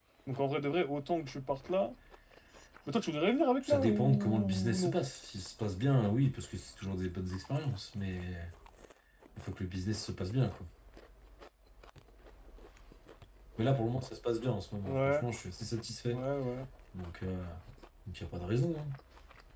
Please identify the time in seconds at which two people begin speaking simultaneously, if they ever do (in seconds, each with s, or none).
3.6 s